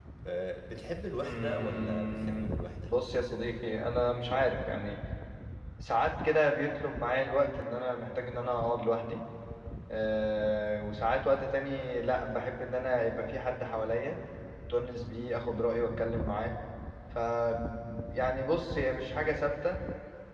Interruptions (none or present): present